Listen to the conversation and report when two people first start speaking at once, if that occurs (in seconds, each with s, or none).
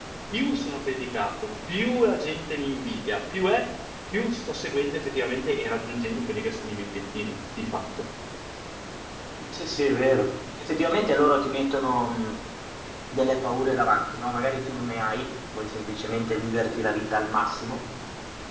none